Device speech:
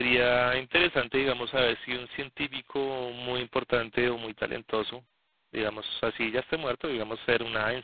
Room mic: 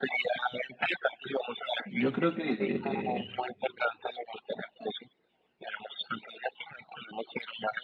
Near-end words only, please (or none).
Yo creo que, eh,